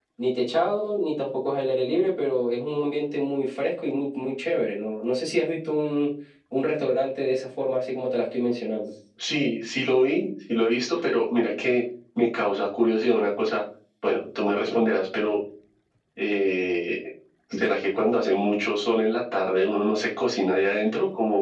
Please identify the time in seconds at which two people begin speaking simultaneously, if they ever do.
none

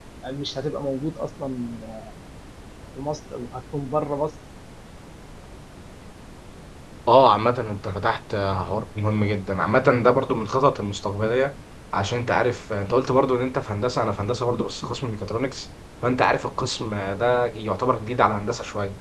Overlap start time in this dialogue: none

